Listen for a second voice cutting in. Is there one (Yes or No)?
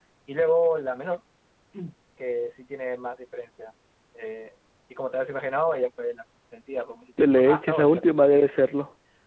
Yes